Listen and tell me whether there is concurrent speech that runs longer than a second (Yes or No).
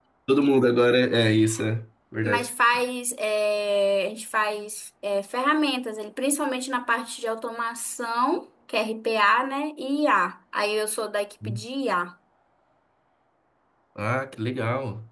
No